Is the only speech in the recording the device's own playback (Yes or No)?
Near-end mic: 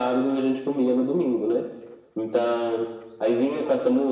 Yes